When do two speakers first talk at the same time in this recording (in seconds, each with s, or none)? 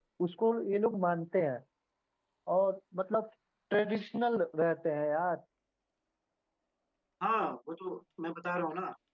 none